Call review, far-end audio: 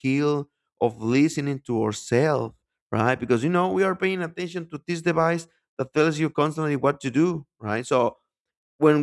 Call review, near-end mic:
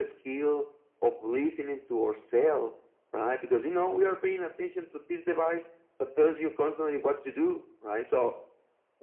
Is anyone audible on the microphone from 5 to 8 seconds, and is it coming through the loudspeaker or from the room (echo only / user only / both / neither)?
echo only